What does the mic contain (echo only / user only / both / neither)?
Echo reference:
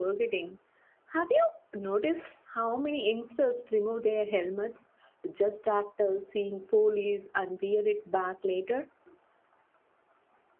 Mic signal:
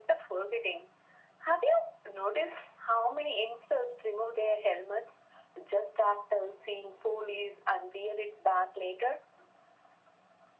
echo only